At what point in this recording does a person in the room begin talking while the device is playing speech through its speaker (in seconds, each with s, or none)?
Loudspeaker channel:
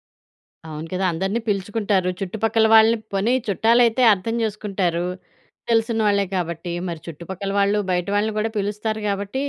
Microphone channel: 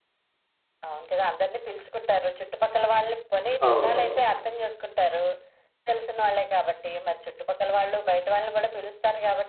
3.6 s